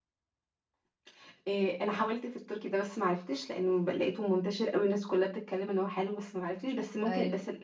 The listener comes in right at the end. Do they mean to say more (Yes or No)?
No